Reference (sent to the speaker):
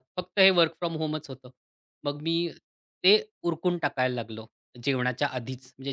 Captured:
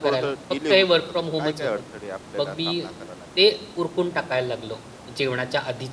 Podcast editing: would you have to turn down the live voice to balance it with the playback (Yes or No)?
No